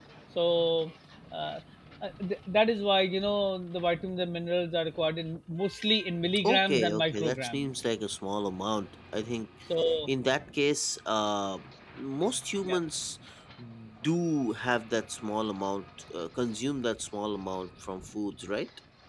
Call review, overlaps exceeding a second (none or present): present